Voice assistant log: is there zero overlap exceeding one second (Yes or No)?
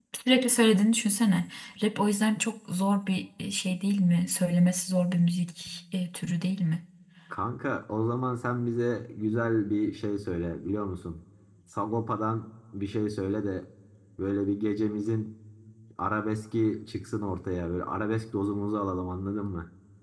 Yes